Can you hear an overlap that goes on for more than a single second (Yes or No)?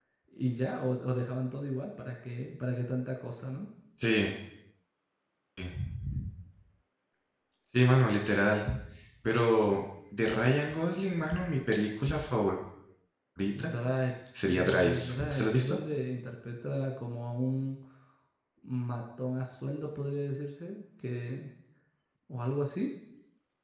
Yes